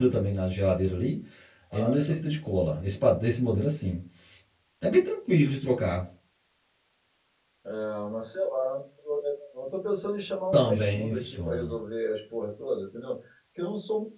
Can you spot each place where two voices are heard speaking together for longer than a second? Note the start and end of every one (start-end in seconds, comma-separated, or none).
10.5-11.7